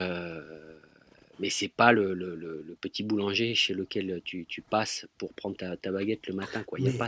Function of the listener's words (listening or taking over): taking over